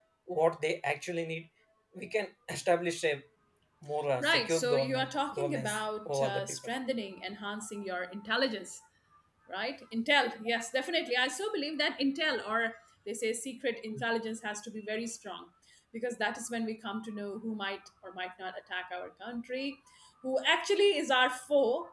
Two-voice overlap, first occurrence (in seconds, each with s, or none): 4.2 s